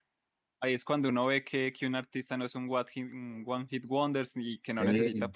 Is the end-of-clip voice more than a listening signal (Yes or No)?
No